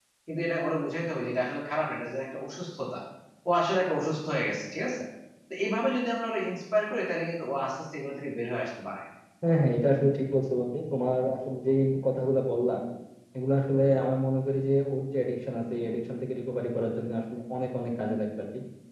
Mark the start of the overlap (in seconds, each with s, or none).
none